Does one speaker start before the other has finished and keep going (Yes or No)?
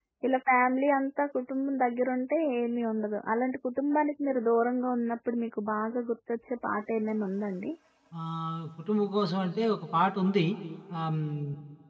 No